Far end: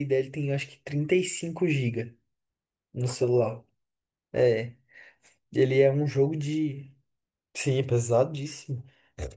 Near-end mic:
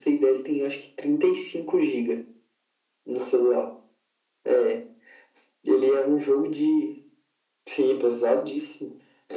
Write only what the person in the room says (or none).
none